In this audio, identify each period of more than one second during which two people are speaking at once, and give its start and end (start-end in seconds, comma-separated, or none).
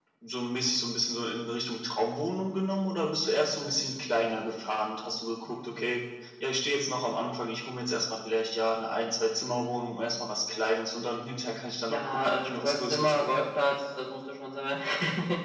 11.9-13.4